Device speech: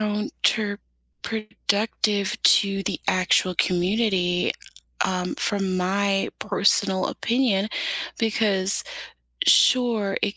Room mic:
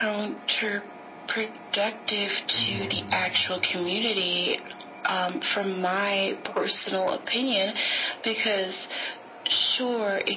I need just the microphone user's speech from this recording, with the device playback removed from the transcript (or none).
hmm